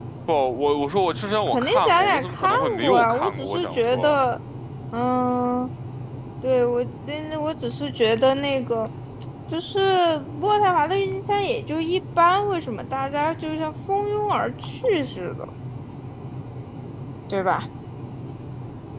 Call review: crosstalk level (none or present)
present